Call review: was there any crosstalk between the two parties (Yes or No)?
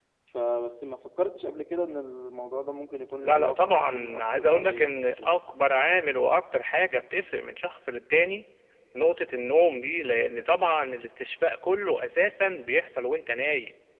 Yes